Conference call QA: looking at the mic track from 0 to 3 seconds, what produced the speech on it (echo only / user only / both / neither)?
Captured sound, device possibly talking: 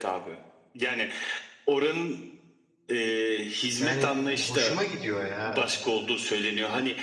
echo only